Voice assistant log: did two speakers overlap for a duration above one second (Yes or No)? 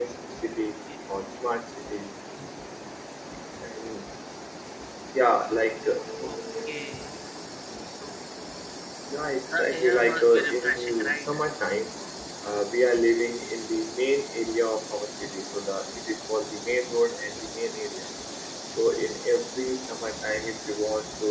Yes